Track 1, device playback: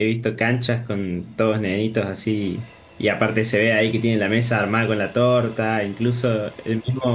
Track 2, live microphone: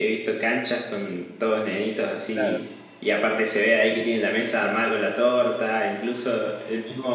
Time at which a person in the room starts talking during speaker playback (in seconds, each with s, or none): 2.3 s